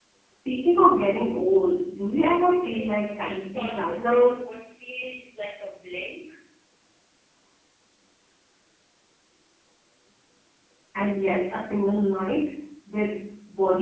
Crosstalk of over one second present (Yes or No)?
Yes